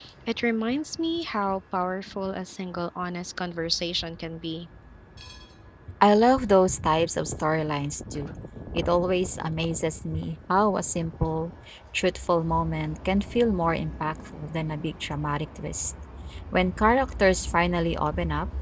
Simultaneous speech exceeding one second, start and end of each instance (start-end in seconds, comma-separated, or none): none